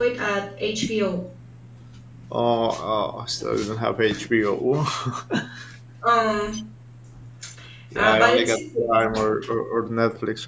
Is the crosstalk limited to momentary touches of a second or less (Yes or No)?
No